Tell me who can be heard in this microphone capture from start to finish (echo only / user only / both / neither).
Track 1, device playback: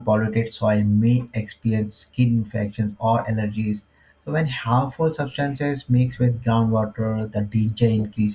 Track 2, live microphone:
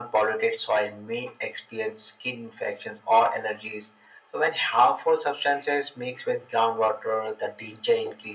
echo only